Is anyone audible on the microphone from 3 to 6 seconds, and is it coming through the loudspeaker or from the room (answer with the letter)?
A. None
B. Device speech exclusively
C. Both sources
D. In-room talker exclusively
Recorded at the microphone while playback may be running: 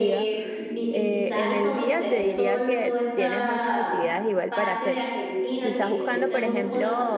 C